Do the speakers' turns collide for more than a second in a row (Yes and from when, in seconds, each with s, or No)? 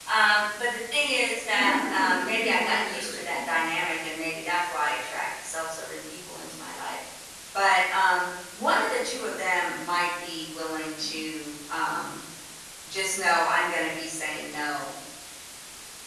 Yes, from 1.5 s